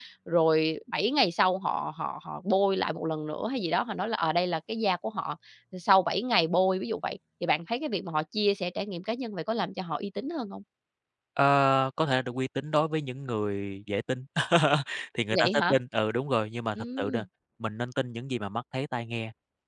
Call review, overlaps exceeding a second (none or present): none